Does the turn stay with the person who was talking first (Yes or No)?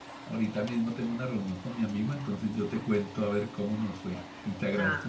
Yes